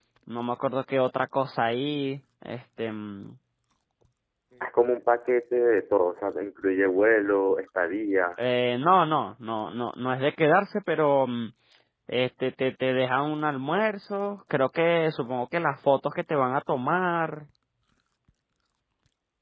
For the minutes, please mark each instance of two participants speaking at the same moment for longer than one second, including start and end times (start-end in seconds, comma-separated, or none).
none